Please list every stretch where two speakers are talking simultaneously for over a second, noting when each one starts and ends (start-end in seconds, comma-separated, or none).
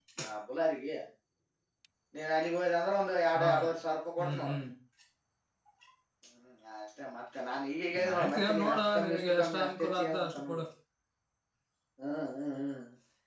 8.2-10.6